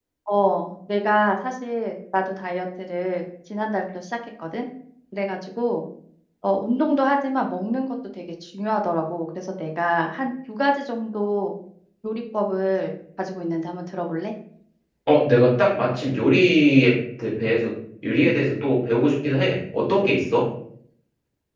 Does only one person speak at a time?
Yes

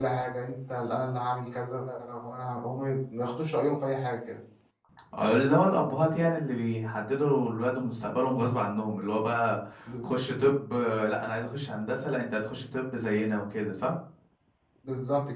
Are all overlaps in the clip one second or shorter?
Yes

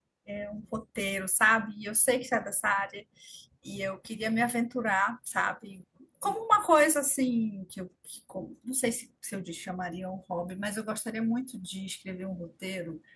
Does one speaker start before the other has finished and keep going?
No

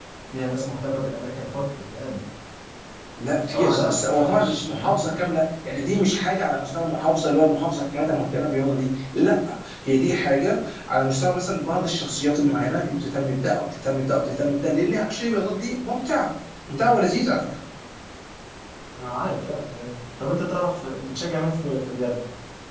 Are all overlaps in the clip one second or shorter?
No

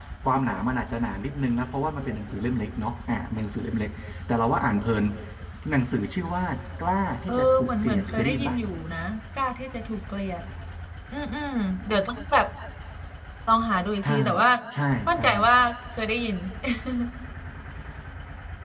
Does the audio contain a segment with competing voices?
Yes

